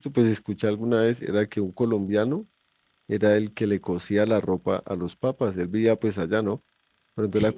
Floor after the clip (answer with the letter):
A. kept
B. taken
A